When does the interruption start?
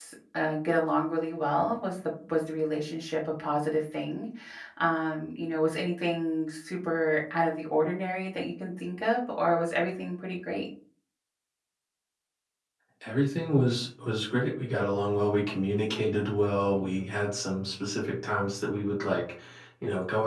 none

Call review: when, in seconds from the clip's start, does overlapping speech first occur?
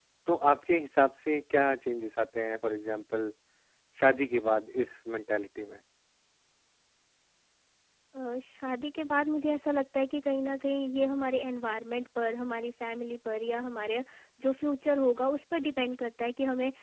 none

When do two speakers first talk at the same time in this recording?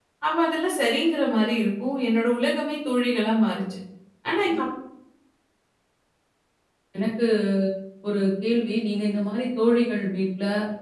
none

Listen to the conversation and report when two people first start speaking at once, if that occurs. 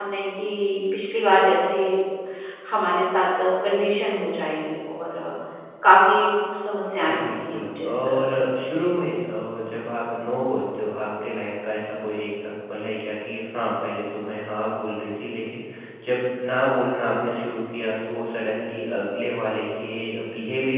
7.1 s

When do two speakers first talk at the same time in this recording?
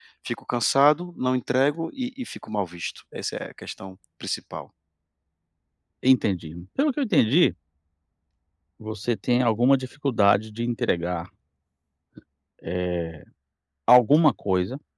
none

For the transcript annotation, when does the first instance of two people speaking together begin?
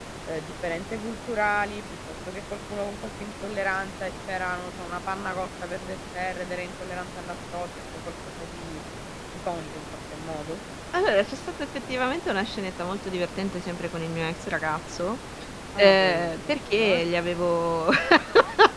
15.8 s

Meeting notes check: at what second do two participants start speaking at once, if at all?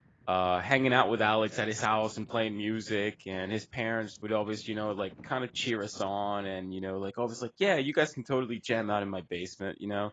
none

